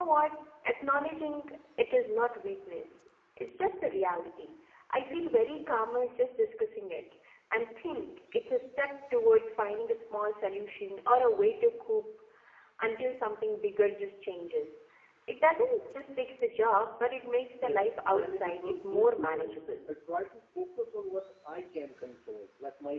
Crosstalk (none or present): present